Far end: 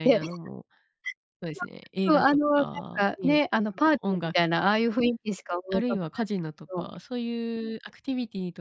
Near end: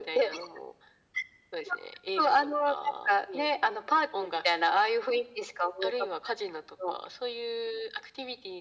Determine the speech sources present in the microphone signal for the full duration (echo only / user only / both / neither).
echo only